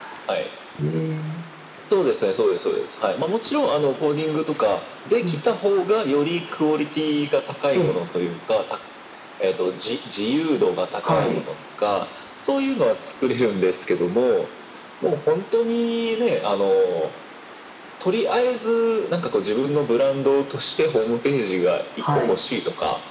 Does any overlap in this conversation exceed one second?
No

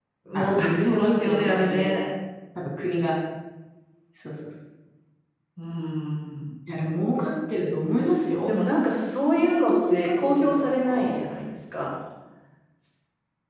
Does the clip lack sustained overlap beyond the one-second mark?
No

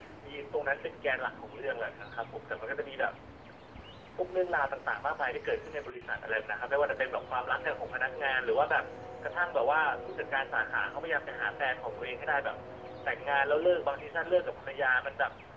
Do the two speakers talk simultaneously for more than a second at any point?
No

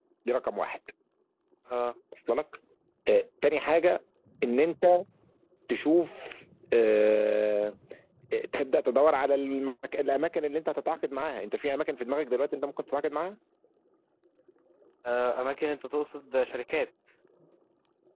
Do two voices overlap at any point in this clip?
No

